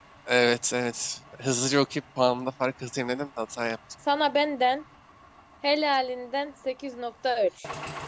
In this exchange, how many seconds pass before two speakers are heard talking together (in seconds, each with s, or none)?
none